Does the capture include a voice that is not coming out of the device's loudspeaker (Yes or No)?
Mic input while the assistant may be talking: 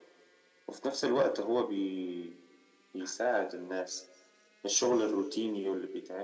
No